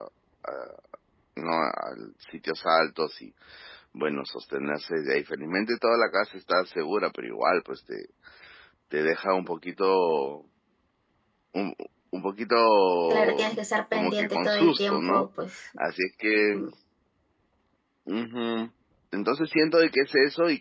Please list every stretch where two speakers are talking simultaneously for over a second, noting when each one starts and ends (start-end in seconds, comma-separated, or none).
13.9-15.3